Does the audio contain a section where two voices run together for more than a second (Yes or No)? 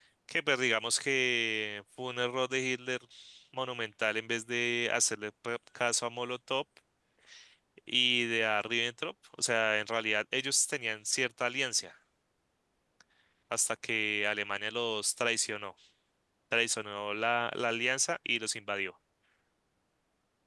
No